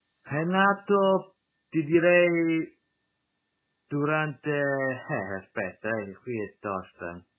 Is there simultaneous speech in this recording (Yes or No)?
No